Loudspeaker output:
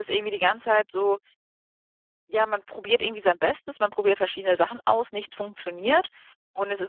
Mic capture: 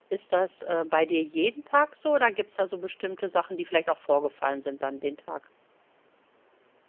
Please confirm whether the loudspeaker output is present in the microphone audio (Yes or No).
No